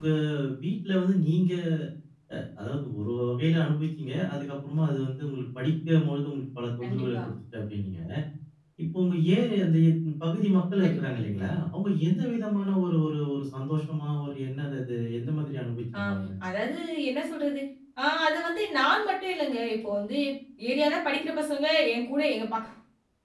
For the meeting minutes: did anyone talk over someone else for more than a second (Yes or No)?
No